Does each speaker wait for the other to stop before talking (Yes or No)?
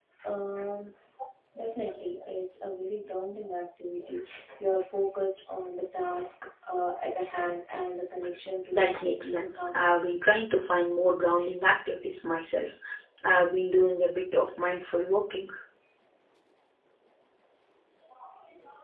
No